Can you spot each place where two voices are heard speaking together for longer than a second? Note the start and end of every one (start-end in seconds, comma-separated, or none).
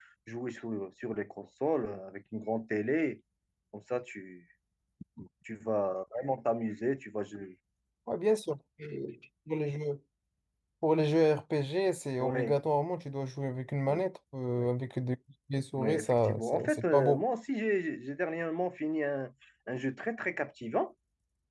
15.8-17.2